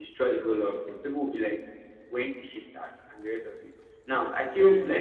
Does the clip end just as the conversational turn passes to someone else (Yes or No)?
No